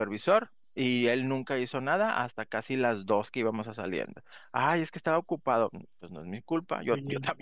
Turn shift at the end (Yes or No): No